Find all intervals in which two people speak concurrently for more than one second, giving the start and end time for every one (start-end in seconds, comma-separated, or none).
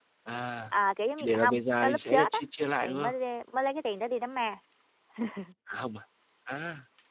1.2-2.4